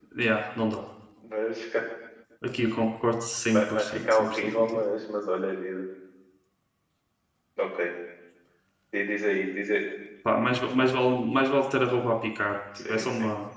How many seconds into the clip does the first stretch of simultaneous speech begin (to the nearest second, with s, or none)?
4 s